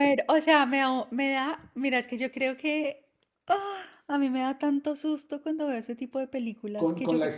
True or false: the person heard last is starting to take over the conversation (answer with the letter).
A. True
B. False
A